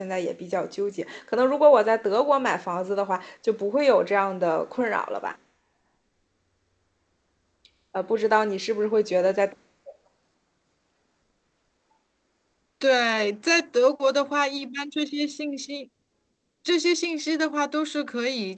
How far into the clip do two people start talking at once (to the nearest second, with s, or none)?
none